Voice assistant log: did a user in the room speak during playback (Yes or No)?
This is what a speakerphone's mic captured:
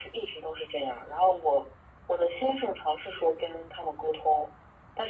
No